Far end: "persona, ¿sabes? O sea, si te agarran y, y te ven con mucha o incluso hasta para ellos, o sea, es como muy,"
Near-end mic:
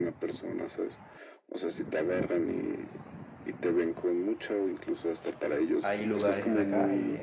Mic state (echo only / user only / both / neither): both